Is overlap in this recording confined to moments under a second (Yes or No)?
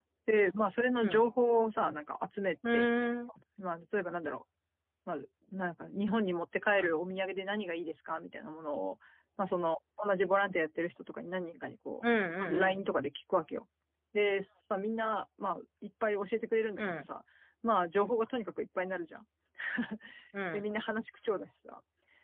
Yes